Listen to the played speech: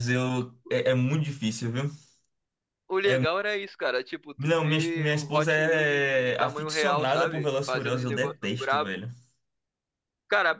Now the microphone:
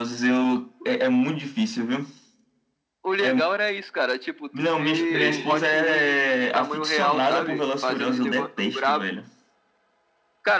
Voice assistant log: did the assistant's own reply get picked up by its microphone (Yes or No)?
Yes